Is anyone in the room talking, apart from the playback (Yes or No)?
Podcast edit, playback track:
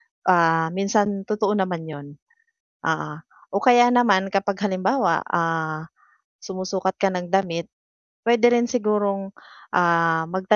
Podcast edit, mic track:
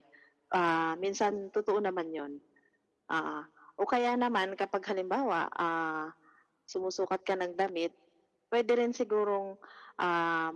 No